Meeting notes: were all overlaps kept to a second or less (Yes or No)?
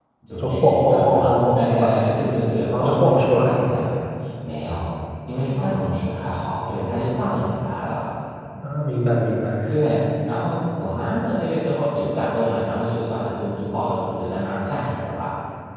No